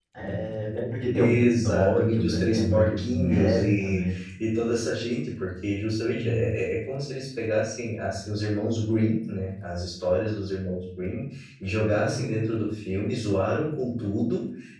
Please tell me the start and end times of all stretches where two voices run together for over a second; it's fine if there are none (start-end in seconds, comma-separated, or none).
1.2-4.2